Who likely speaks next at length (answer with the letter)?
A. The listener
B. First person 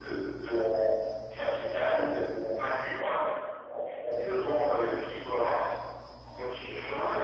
B